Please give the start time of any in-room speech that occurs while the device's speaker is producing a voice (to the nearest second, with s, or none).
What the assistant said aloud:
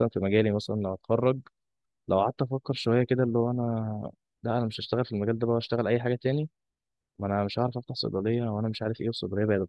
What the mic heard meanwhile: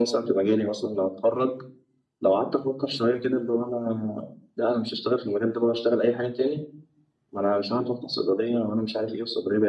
none